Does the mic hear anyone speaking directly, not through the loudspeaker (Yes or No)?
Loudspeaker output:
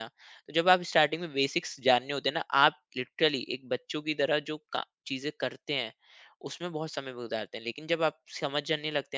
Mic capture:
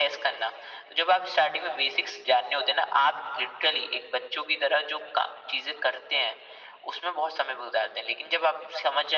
No